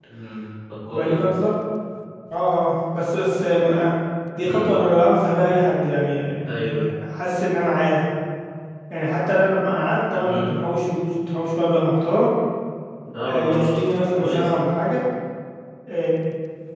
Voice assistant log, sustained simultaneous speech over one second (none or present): present